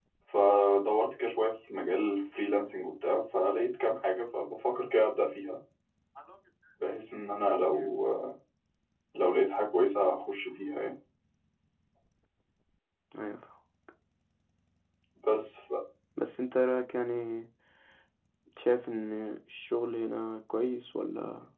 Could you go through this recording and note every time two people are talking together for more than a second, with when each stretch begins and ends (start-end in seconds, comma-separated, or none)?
none